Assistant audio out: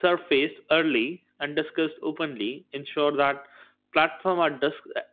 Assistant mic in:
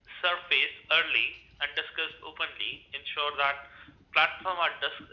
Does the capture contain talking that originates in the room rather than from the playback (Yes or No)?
No